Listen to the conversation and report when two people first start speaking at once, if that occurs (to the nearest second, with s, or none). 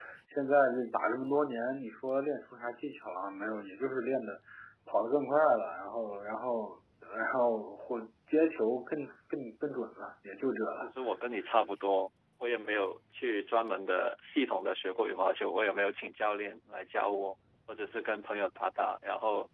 none